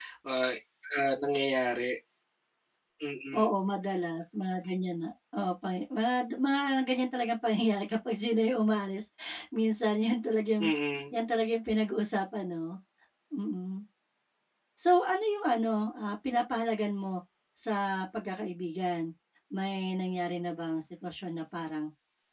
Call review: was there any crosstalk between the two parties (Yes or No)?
No